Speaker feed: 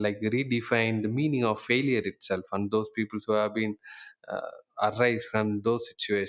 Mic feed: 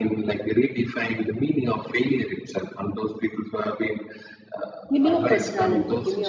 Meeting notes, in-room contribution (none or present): present